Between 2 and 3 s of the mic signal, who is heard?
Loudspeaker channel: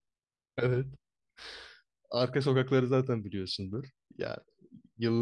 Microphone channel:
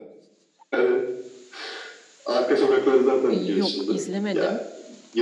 echo only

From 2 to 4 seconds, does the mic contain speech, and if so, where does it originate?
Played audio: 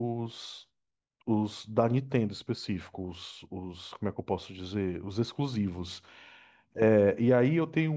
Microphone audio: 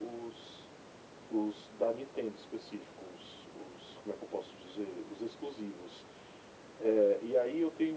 echo only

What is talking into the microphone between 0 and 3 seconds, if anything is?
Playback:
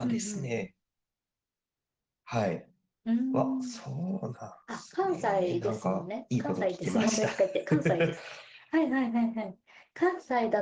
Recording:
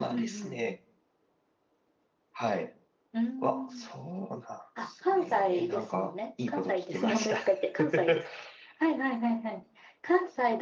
echo only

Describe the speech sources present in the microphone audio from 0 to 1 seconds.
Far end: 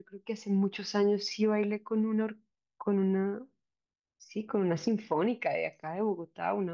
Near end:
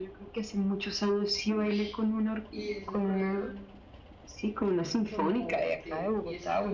echo only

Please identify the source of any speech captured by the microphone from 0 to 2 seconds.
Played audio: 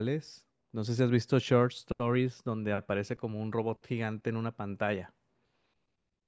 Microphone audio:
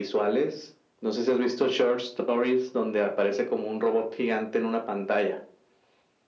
echo only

